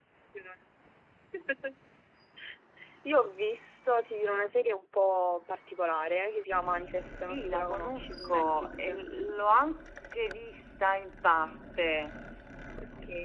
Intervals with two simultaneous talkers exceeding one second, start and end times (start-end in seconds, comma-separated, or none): 7.0-9.0